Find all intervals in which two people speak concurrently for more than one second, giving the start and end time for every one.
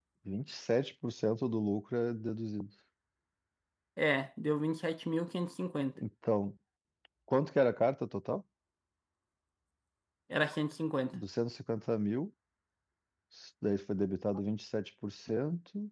none

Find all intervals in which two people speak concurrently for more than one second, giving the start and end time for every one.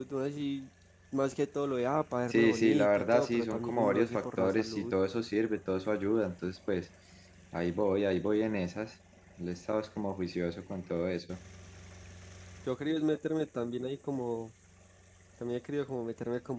2.3-4.9

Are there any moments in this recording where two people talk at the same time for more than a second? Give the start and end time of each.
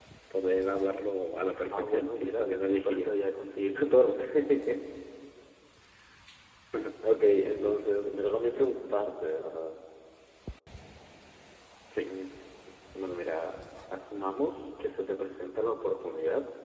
1.5-3.1

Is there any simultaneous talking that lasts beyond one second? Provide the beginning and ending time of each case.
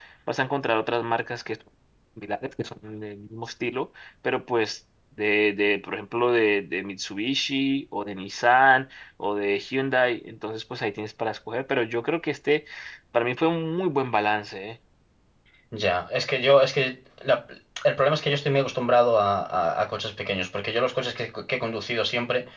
none

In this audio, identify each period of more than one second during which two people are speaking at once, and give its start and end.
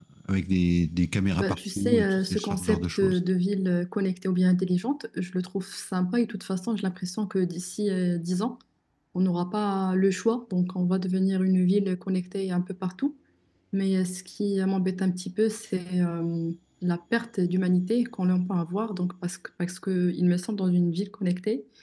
1.4-3.2

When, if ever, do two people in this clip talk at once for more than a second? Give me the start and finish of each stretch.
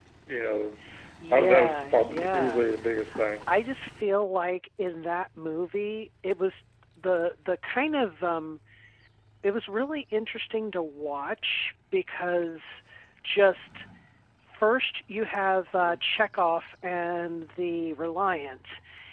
1.3-2.6

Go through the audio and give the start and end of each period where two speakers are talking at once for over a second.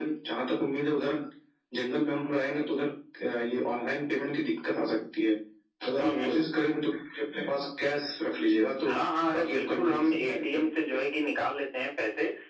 9.3-10.6

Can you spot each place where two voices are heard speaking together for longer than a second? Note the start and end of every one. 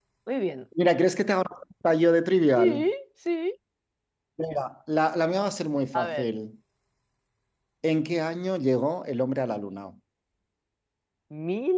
none

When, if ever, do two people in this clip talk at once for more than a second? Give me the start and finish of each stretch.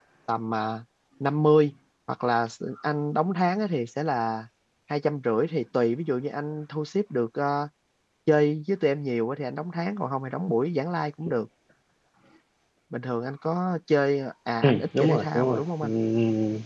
14.6-15.9

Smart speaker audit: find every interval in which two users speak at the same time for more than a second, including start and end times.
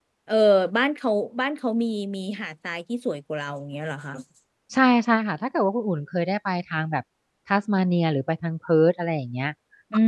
none

